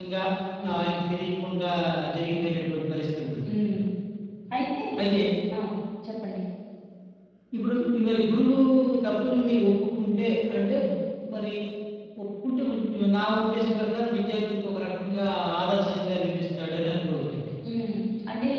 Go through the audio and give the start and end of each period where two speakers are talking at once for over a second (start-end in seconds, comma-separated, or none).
none